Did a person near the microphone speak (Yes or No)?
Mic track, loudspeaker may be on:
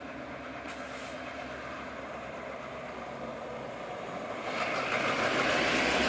No